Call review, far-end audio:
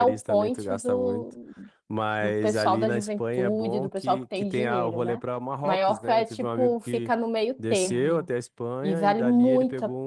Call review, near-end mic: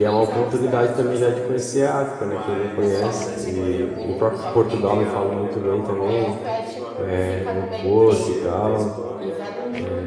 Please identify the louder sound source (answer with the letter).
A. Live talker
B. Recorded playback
A